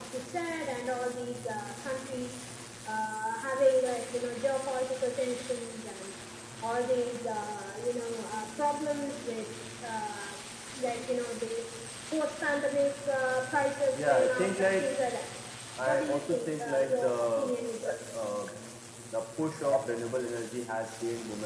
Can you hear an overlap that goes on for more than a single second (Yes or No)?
Yes